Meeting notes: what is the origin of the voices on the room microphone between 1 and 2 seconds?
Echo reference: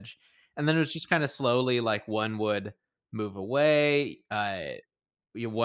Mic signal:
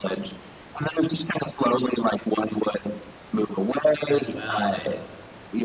echo only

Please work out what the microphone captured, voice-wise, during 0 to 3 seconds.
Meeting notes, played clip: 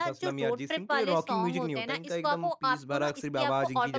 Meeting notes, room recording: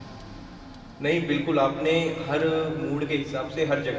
user only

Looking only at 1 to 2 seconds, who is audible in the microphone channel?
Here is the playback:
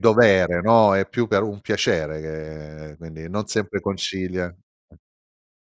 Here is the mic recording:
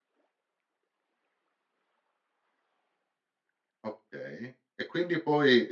neither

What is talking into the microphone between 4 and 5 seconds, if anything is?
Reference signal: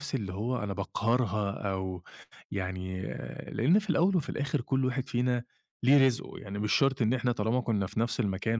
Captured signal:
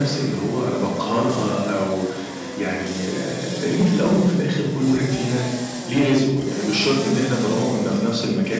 echo only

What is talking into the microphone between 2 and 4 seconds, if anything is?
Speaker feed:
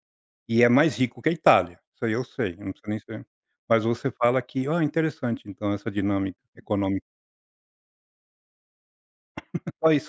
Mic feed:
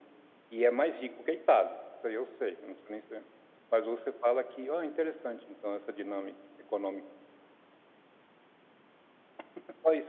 echo only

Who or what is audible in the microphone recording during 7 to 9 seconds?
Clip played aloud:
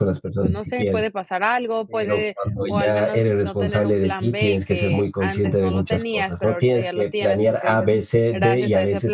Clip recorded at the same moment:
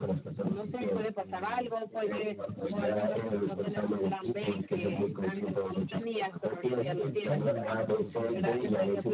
both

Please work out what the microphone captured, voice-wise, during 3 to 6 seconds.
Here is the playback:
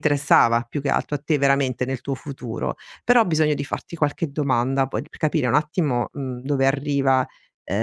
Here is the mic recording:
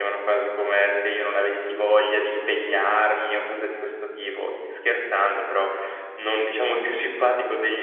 user only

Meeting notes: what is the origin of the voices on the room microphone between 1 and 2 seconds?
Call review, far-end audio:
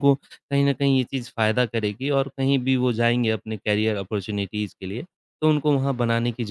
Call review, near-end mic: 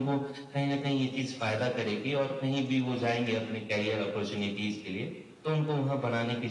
echo only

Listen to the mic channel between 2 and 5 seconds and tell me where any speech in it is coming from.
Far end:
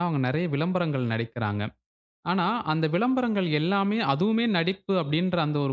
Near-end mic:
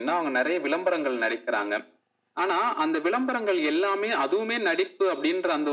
echo only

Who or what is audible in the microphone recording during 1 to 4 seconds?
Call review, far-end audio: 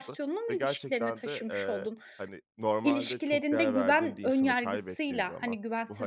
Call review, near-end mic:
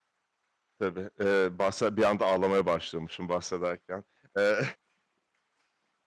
user only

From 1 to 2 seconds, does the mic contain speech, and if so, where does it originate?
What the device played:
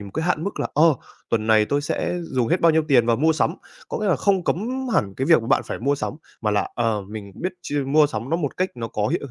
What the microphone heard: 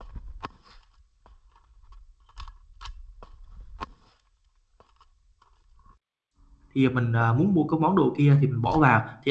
neither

